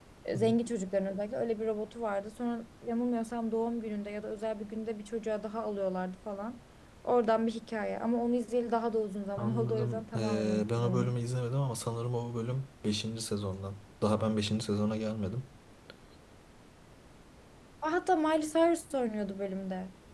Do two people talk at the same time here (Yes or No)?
Yes